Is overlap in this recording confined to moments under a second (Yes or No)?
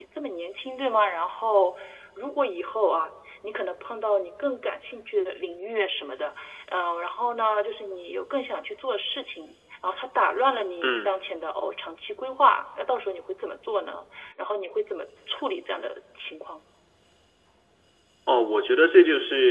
Yes